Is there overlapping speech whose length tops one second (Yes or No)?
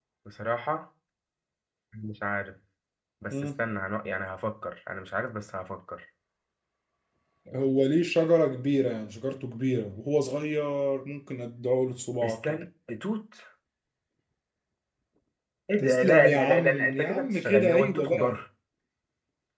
Yes